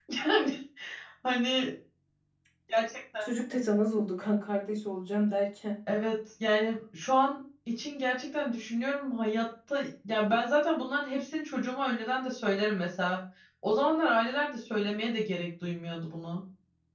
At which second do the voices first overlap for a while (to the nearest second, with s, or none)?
none